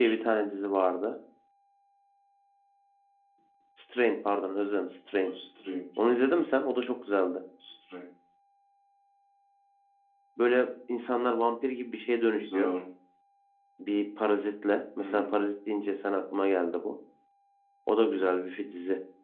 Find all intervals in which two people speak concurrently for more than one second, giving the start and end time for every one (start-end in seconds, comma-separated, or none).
none